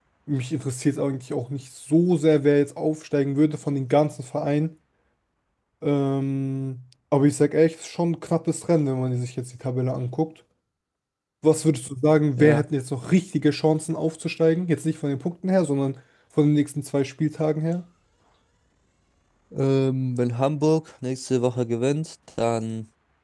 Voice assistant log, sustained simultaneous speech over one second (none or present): none